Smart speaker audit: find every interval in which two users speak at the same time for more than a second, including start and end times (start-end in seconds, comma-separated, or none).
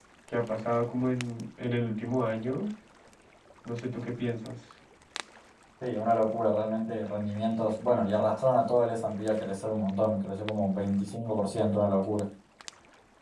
none